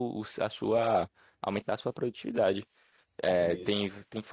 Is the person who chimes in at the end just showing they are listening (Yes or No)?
Yes